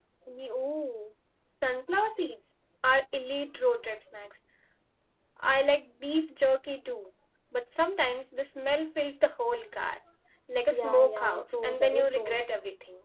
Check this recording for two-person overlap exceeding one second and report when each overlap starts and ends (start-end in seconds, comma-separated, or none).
10.7-12.4